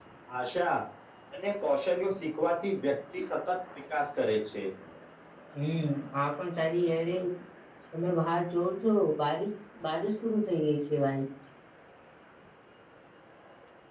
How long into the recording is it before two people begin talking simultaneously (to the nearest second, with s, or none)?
none